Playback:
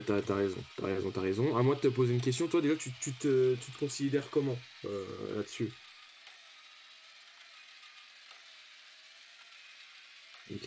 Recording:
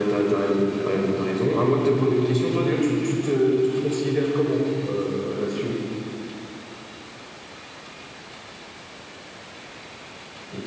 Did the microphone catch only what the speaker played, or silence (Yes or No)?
Yes